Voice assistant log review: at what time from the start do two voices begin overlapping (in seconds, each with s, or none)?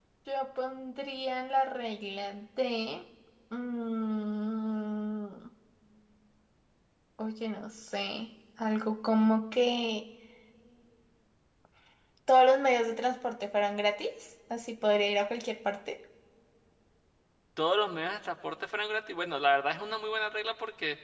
none